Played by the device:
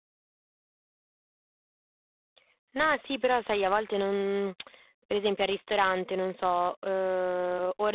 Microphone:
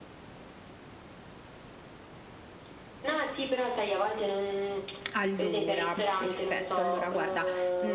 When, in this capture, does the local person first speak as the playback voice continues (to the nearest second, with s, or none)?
5 s